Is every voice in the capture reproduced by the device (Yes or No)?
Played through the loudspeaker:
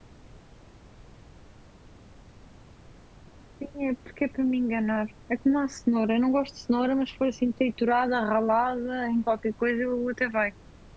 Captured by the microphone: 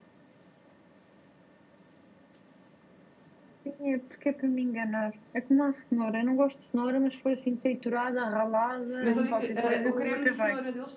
No